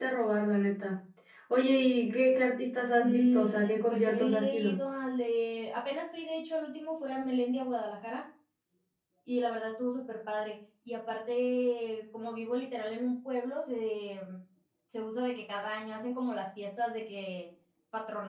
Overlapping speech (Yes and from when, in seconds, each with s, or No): Yes, from 3.0 s